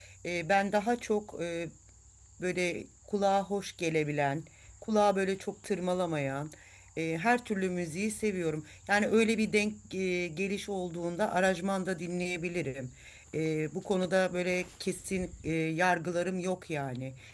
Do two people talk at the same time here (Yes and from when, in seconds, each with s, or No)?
No